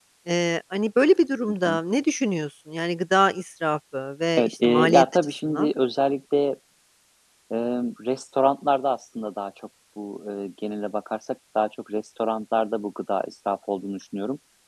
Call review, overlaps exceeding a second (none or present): present